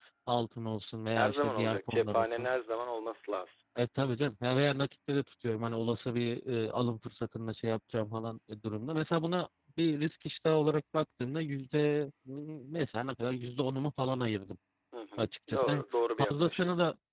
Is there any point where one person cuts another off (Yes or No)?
Yes